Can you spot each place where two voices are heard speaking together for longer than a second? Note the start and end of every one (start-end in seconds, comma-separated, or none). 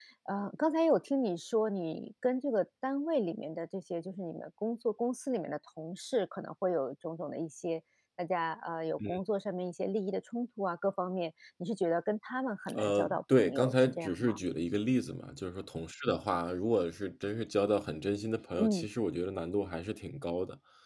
12.7-14.4